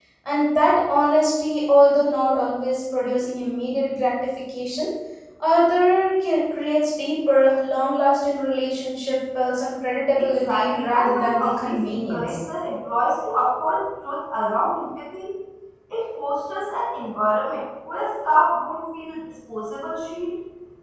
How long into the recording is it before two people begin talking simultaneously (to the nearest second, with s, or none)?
10 s